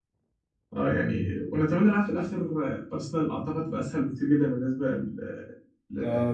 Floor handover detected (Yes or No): Yes